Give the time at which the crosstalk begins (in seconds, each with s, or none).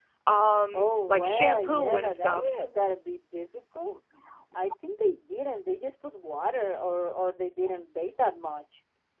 0.7 s